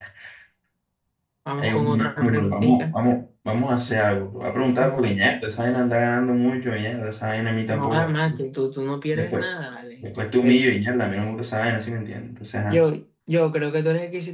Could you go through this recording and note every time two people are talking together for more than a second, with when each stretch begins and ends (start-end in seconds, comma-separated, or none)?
1.6-2.9